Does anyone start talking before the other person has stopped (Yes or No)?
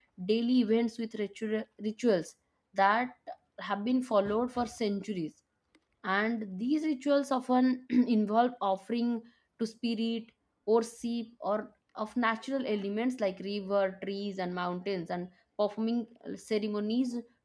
No